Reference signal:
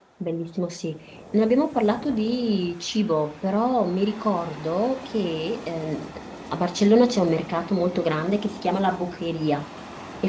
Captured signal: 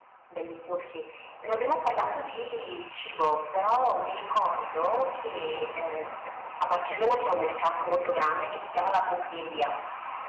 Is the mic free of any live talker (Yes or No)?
Yes